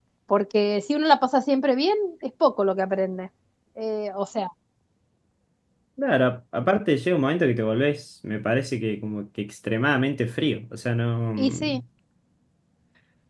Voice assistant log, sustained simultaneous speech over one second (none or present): none